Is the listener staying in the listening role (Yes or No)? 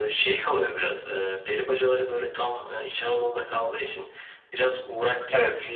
Yes